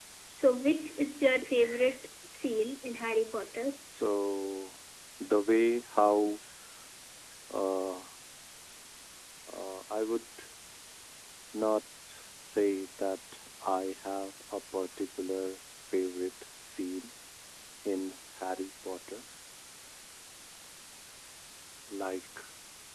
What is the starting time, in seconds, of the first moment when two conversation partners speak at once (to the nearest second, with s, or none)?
none